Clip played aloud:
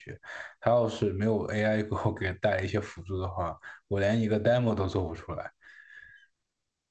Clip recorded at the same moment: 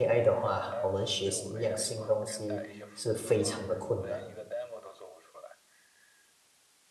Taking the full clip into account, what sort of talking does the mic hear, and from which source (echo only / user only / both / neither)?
both